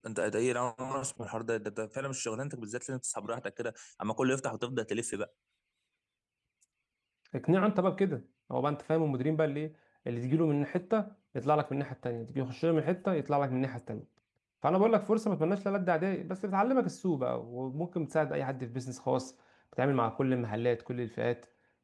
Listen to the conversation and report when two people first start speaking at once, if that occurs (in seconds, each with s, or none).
none